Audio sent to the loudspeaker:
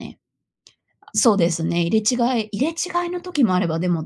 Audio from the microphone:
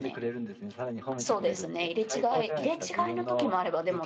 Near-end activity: present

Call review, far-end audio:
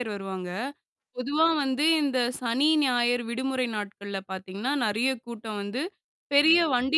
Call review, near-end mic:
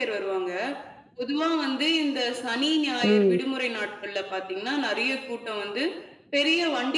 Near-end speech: present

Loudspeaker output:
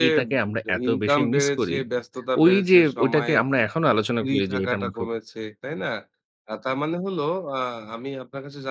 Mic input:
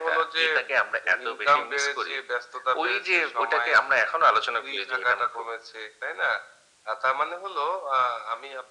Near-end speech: none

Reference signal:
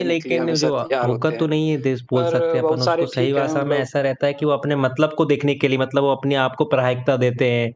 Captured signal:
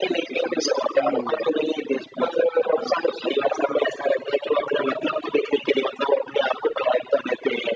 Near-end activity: present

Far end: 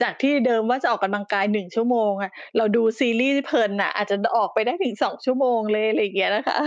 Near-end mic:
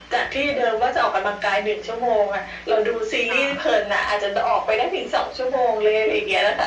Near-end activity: present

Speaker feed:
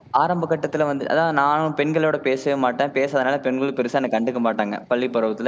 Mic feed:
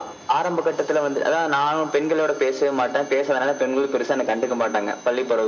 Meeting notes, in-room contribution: none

